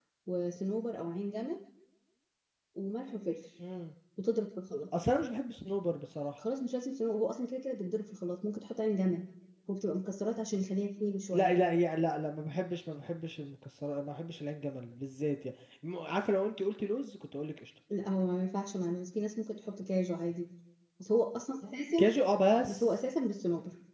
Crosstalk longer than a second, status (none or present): none